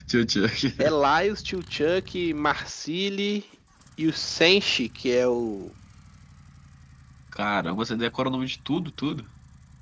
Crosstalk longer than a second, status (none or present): none